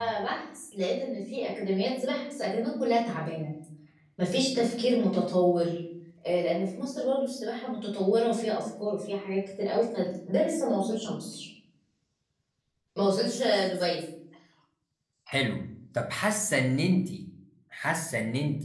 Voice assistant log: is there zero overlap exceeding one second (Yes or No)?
Yes